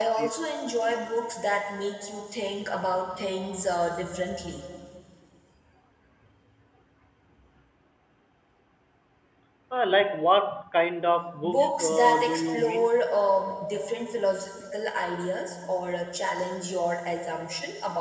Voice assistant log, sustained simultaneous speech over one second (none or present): present